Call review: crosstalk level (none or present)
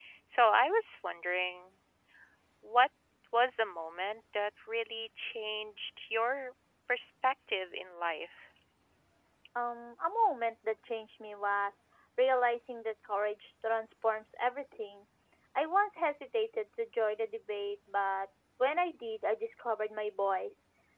none